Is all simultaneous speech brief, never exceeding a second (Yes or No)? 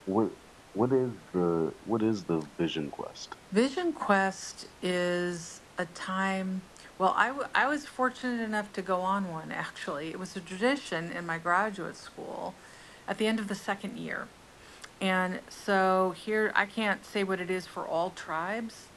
Yes